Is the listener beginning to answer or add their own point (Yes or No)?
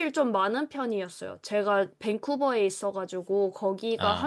No